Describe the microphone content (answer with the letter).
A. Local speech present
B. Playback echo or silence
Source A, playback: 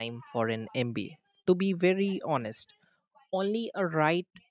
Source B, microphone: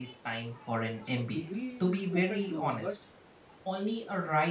A